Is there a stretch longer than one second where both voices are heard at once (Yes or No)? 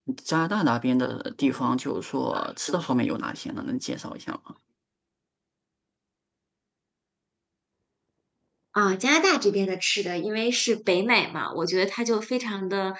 No